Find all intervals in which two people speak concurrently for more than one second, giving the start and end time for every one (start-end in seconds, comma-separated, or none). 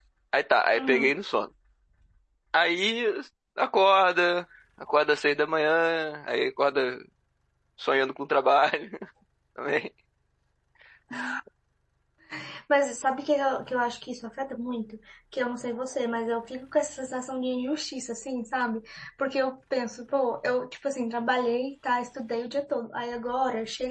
none